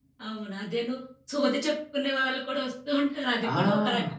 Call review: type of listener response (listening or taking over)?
taking over